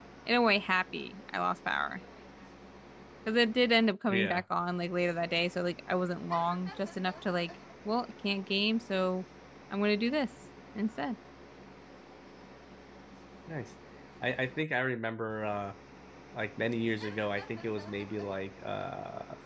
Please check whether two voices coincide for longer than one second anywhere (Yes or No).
No